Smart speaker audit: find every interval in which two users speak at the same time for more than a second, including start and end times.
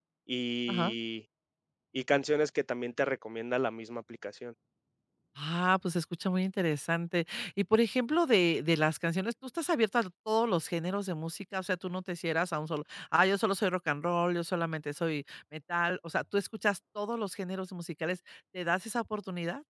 none

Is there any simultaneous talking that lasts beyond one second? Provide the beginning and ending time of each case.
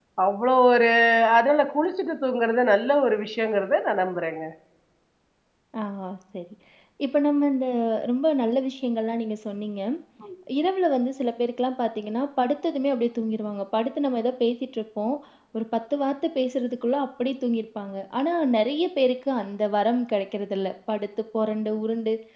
none

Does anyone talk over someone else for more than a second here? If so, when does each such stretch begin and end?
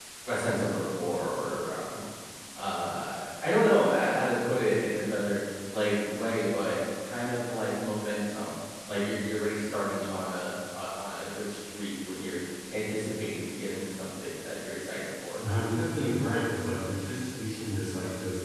none

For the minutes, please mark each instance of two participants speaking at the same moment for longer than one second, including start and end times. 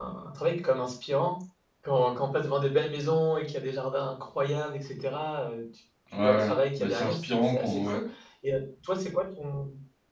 6.2-8.0

